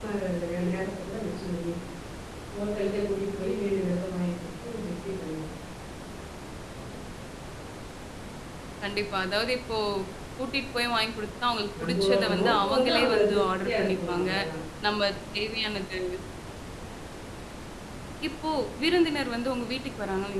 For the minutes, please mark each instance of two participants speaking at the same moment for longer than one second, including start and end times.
11.8-14.3

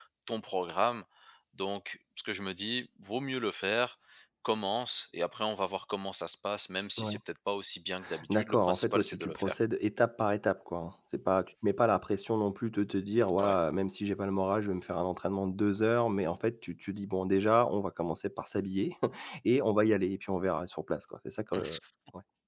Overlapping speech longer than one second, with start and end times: 8.3-9.5

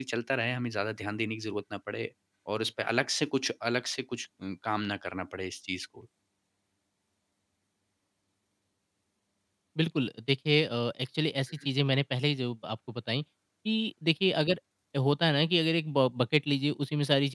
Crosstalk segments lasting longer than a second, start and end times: none

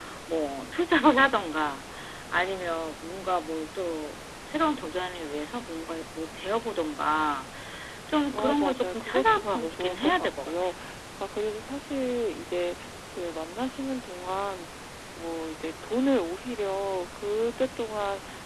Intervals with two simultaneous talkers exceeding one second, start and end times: 8.3-10.5

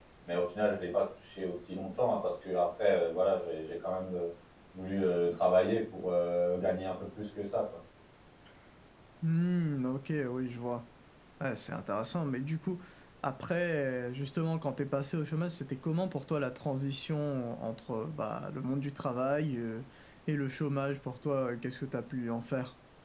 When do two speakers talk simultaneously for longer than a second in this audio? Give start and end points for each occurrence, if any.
none

